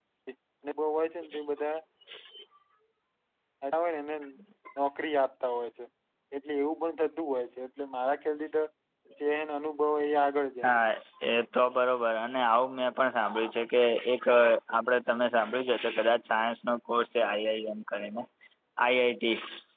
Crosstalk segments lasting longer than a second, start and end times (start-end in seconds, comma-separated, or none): none